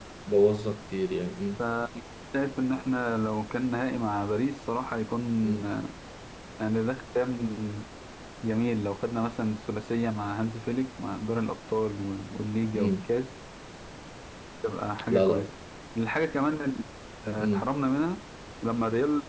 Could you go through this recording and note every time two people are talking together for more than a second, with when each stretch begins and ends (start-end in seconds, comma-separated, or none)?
none